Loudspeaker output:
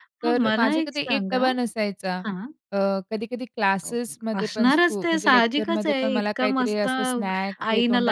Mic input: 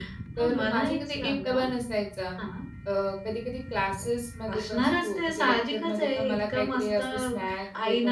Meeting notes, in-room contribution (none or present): none